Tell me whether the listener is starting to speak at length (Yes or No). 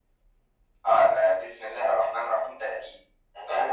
Yes